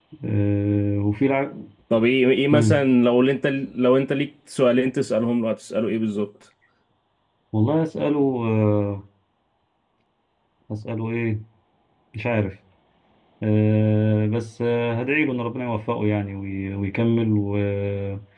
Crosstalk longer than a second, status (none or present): none